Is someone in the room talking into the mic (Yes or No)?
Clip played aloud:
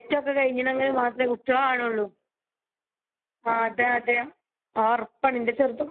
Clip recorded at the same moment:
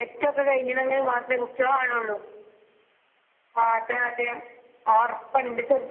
No